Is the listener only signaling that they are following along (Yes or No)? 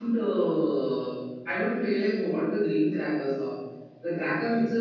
Yes